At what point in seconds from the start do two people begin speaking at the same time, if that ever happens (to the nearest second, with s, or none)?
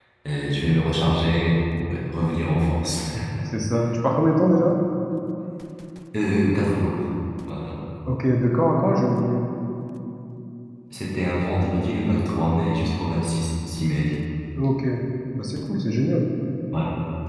none